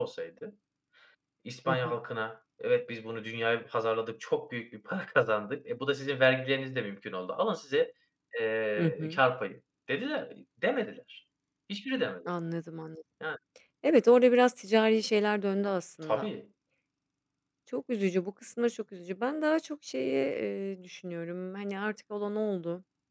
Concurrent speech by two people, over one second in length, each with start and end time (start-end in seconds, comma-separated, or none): none